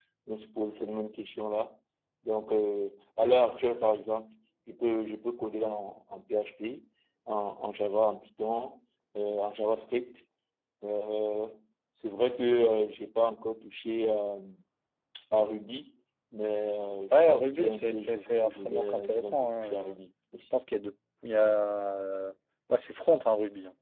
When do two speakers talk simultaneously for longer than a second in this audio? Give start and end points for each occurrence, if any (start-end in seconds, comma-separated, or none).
17.1-20.0